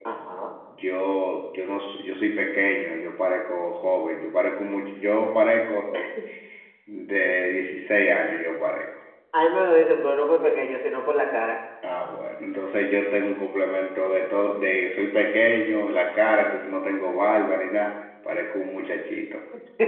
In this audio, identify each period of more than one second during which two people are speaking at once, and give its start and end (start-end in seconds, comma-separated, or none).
none